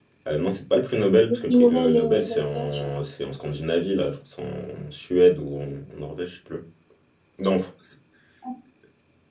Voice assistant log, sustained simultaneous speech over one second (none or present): present